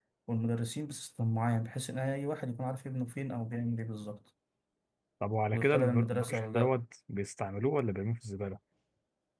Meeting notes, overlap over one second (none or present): present